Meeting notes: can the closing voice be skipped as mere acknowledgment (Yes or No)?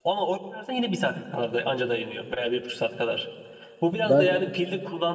Yes